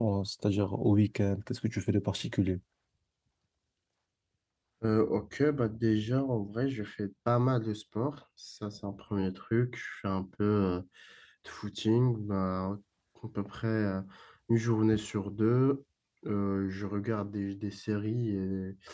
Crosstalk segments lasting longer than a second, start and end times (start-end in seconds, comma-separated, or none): none